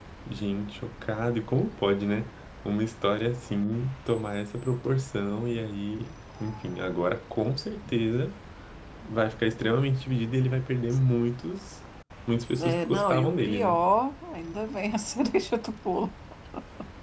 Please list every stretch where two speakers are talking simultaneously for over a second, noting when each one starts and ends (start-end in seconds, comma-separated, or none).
12.6-13.8